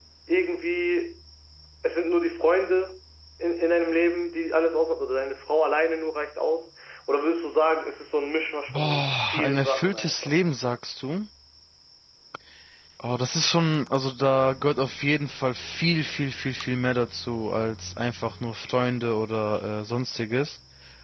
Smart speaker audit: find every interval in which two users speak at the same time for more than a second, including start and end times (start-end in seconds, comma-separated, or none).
8.7-10.3